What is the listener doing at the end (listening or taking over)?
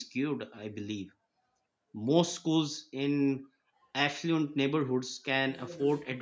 listening